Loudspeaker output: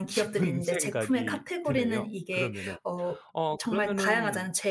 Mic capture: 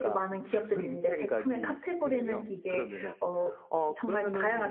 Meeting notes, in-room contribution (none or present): none